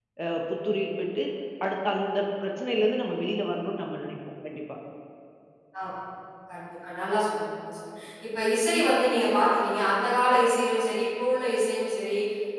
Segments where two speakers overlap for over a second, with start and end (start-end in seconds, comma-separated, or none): none